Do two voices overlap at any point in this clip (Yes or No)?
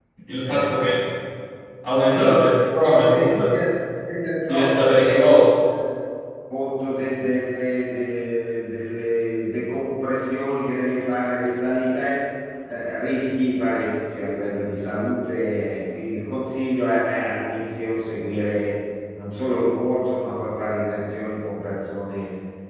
Yes